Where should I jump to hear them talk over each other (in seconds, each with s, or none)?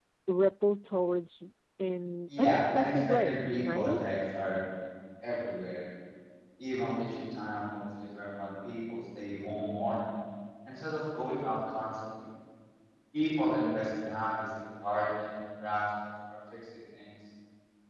2.3 s